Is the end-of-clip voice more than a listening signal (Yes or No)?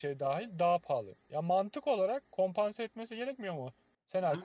No